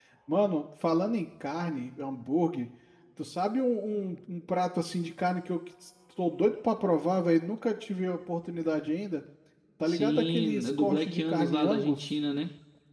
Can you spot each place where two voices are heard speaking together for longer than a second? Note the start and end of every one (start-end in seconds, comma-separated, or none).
9.9-12.1